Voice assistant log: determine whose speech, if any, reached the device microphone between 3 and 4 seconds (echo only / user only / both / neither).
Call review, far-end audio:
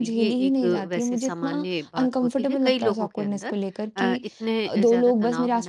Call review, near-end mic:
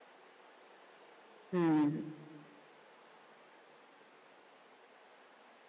neither